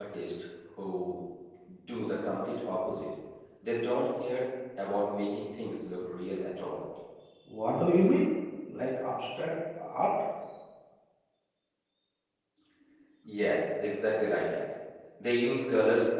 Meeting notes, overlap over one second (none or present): none